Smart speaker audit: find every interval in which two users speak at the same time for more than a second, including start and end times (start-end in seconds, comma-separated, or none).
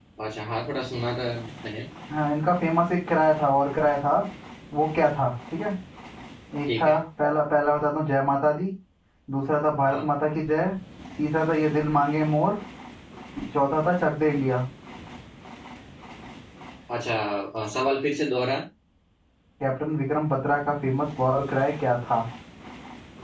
none